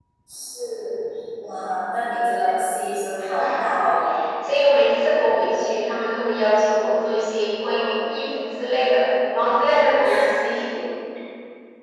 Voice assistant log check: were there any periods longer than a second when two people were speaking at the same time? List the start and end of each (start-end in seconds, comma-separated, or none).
none